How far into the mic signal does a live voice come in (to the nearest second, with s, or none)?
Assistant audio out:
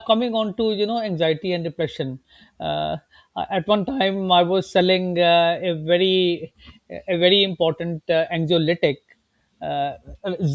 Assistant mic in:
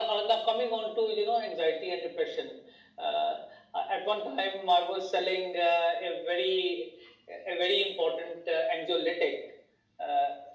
none